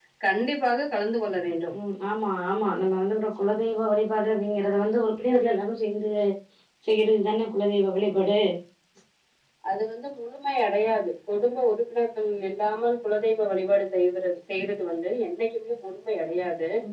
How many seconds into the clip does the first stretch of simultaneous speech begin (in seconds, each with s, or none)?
none